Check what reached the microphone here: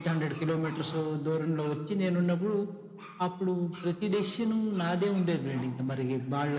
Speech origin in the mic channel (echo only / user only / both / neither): echo only